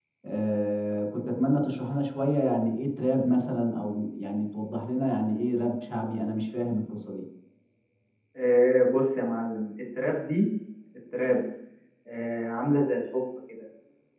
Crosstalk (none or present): none